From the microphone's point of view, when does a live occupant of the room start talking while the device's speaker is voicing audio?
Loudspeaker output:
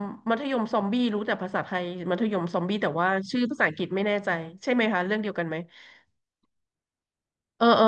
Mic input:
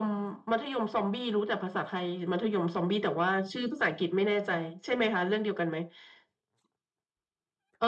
none

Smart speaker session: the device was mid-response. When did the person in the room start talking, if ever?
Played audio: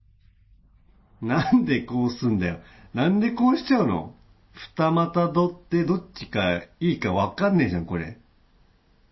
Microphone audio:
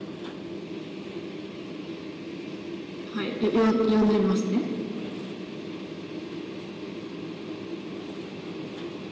3.1 s

